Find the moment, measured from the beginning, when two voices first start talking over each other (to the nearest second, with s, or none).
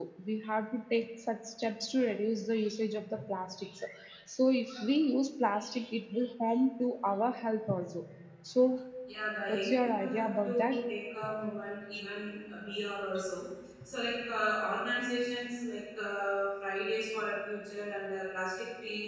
9 s